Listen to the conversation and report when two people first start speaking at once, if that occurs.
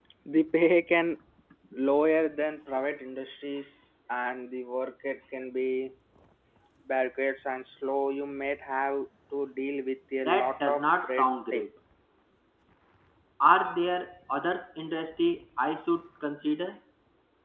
10.2 s

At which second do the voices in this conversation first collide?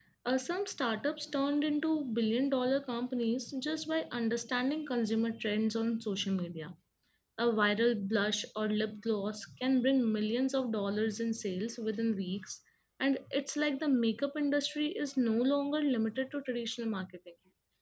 none

